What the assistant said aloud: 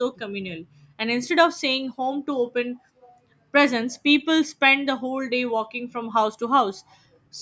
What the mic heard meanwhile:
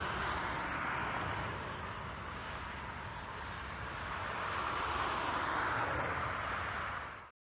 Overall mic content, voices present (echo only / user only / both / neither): neither